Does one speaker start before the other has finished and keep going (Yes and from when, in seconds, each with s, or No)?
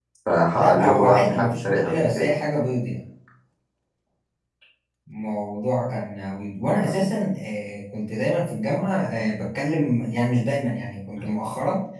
Yes, from 0.5 s